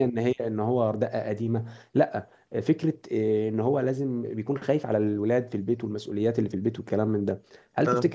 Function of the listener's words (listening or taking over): listening